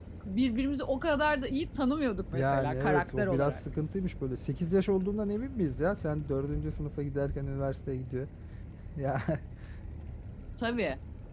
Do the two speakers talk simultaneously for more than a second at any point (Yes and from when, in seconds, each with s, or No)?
Yes, from 2.3 s